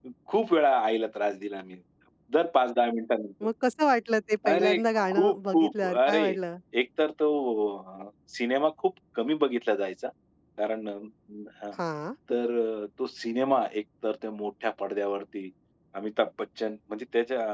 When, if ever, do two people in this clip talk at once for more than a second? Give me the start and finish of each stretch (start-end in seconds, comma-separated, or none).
4.5-6.2